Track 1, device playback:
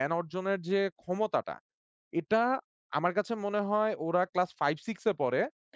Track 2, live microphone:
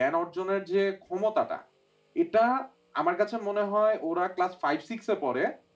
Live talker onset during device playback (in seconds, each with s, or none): none